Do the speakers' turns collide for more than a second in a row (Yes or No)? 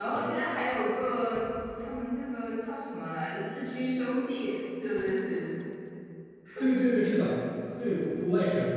No